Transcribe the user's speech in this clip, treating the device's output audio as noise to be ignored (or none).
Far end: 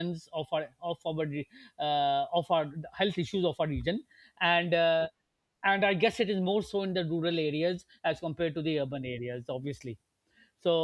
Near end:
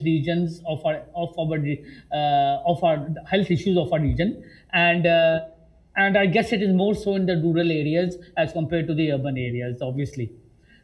none